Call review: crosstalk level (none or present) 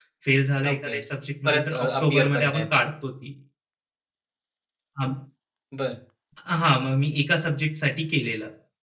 present